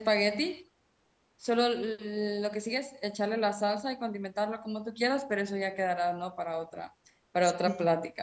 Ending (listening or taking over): taking over